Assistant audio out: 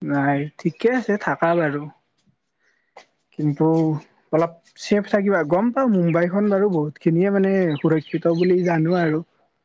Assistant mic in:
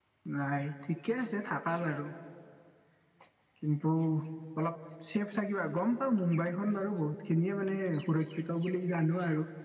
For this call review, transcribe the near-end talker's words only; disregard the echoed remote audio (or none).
none